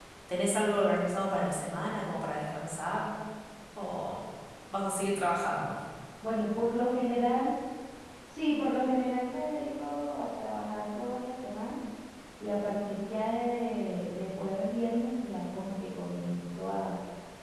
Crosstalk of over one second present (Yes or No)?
No